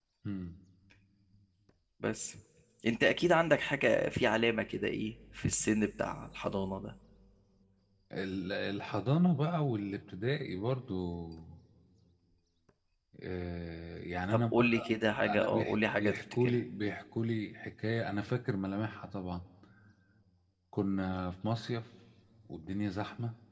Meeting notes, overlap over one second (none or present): present